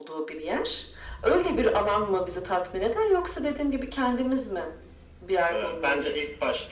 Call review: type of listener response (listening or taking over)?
taking over